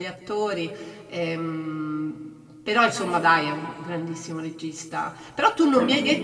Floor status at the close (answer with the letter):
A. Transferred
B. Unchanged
B